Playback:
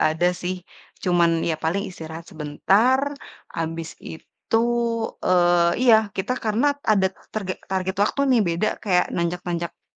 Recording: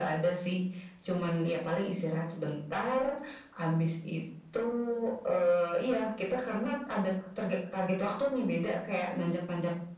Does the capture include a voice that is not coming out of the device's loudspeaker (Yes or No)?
No